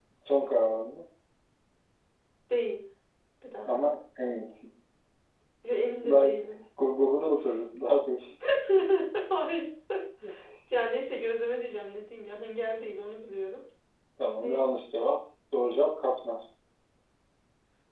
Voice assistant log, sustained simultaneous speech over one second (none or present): none